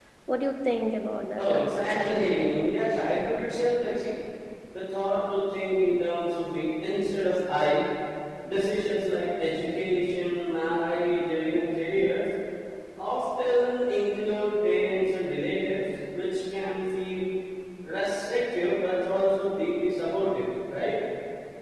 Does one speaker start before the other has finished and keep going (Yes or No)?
Yes